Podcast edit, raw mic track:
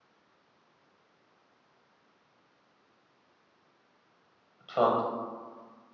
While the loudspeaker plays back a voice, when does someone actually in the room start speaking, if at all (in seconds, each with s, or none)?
4.6 s